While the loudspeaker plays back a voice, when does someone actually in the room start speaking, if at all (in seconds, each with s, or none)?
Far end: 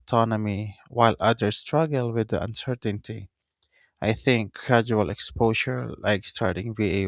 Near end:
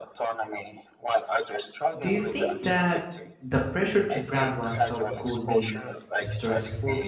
2.0 s